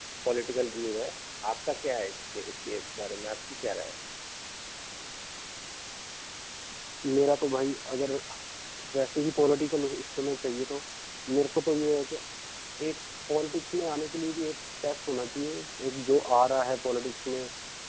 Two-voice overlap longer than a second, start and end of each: none

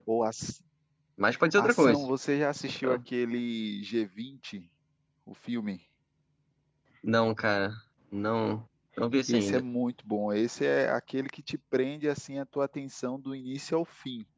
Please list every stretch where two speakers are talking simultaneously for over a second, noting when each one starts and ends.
none

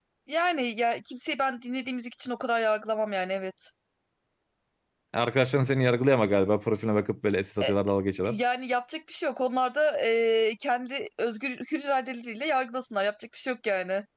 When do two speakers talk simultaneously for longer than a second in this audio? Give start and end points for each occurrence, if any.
none

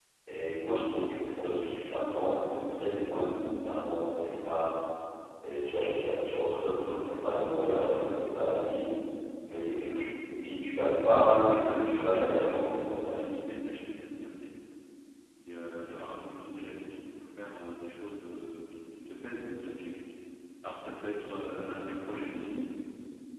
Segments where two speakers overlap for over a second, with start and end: 11.1-13.3

